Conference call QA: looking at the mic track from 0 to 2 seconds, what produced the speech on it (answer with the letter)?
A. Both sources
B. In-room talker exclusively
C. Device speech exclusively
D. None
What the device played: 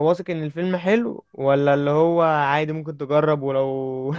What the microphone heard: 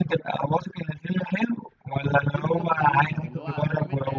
C